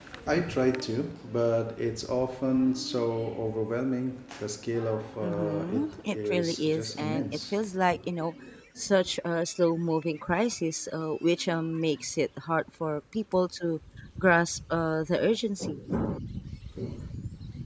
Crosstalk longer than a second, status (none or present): present